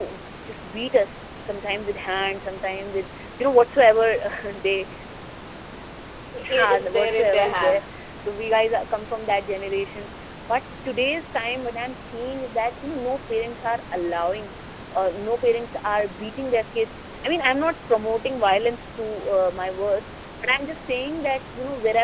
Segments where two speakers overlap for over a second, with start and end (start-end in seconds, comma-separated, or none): 6.6-7.8